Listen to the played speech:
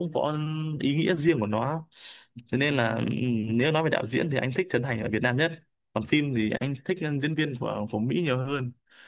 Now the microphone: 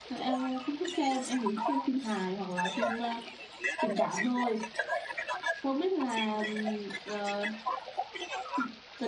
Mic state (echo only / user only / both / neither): both